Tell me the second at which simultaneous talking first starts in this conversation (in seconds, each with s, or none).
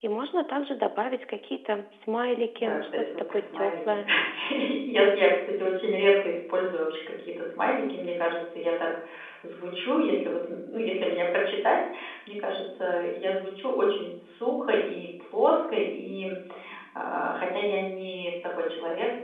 2.6 s